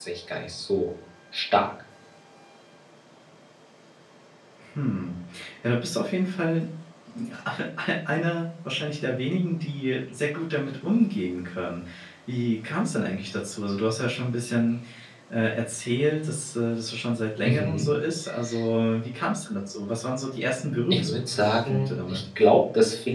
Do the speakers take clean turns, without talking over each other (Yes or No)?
No